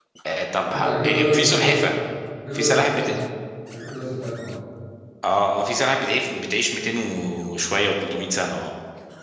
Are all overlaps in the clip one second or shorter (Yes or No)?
No